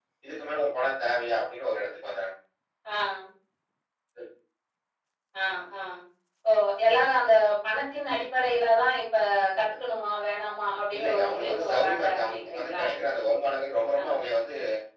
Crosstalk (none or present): present